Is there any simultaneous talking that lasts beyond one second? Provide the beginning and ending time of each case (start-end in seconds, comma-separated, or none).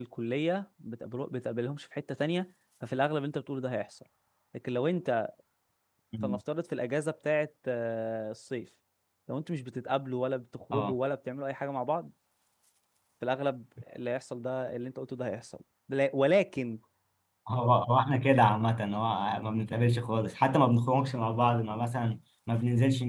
none